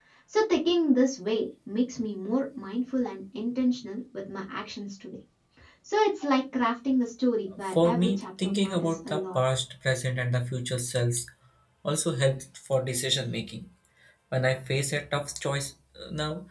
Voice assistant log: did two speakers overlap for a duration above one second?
Yes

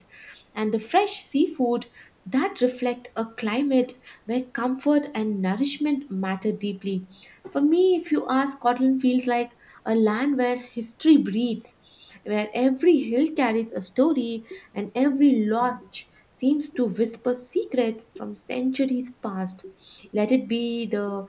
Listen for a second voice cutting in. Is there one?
No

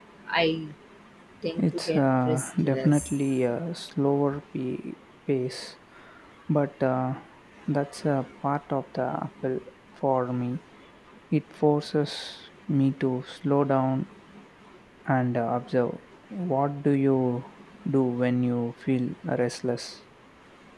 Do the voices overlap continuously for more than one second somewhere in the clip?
Yes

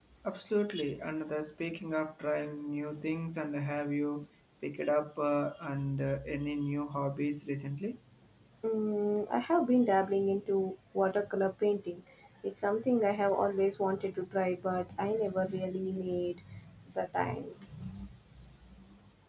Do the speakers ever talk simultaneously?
No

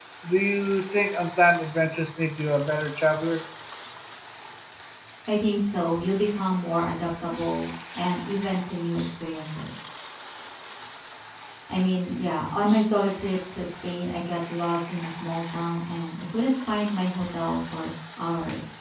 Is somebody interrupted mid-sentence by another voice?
No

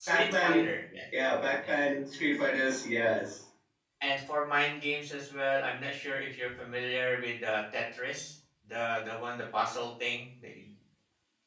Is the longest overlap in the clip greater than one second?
No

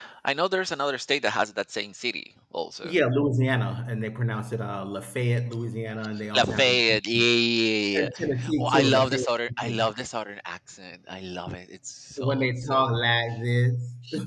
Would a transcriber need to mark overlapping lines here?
Yes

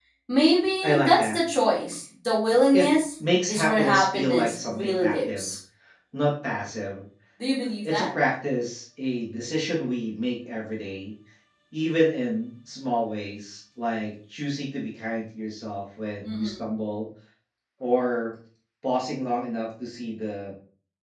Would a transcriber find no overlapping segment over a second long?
No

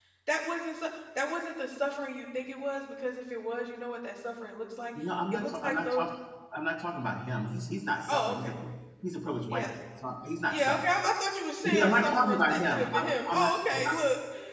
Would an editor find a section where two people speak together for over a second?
Yes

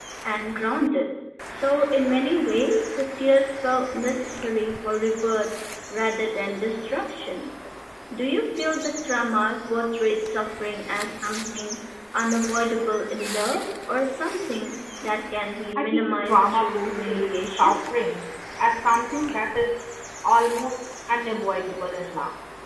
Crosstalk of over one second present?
Yes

